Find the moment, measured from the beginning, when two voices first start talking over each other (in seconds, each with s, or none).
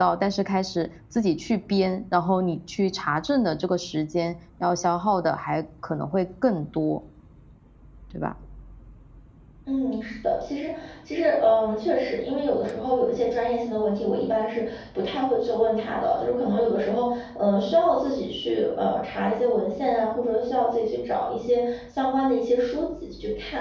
none